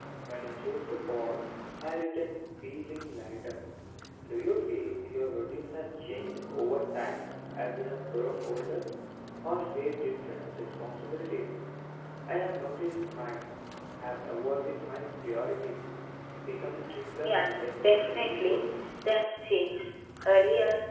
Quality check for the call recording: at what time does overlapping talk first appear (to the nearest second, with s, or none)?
17 s